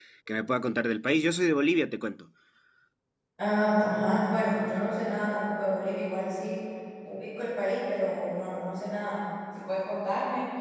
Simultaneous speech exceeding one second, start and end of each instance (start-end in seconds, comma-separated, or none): none